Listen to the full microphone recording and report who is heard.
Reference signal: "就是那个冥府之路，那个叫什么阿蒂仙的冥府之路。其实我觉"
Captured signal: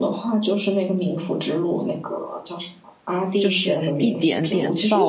both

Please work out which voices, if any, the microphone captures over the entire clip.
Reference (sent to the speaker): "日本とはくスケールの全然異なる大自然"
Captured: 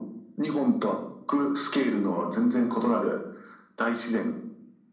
echo only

